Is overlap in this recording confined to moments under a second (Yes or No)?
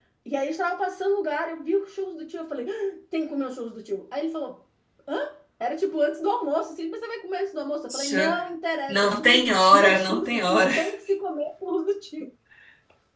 No